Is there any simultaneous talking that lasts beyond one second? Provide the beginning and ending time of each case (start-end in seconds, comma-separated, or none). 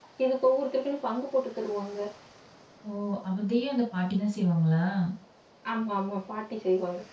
none